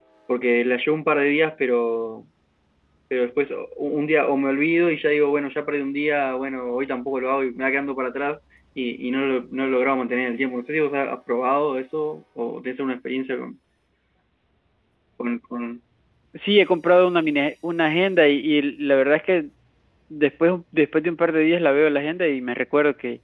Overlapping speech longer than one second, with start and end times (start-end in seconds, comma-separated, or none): none